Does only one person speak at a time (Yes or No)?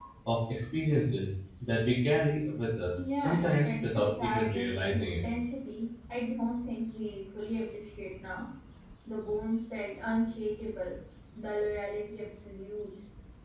No